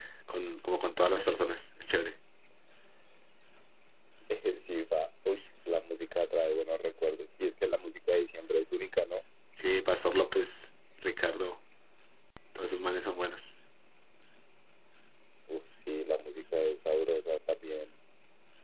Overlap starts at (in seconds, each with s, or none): none